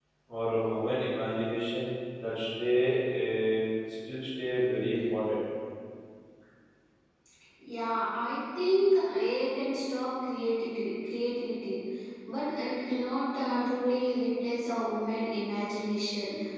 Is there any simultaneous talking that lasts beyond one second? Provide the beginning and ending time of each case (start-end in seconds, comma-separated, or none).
none